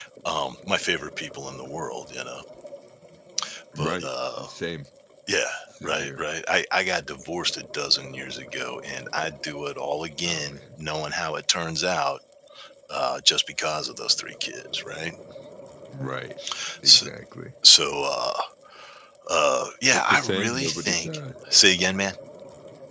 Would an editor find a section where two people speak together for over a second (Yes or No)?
Yes